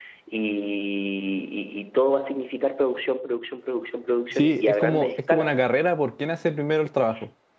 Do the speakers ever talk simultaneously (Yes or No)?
Yes